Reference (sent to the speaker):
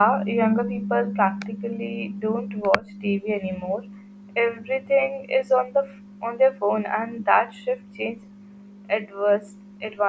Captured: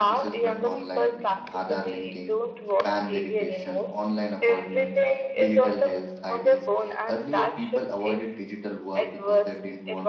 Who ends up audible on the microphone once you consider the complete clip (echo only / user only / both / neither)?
both